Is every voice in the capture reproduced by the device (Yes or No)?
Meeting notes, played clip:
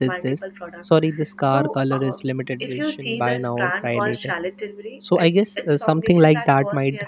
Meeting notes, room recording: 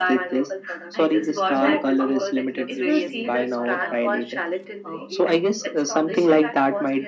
No